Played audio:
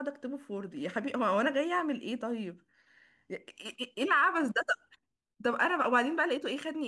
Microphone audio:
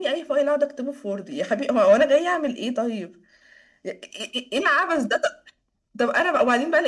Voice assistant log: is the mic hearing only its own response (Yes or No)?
Yes